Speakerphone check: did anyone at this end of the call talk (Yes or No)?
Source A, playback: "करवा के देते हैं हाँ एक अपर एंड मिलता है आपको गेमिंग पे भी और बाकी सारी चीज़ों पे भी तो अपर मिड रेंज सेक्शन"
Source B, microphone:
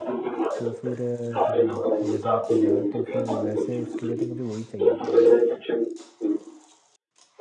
Yes